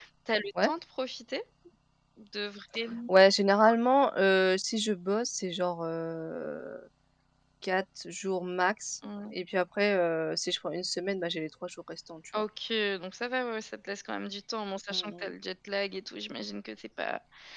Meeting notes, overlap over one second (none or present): none